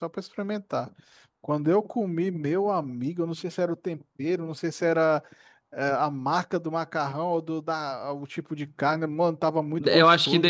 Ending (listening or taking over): taking over